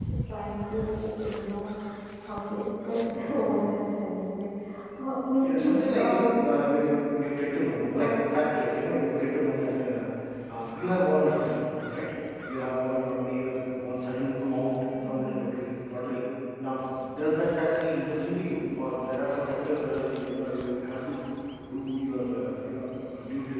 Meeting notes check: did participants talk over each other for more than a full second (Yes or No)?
Yes